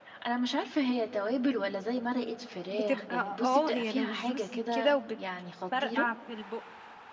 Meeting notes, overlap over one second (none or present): present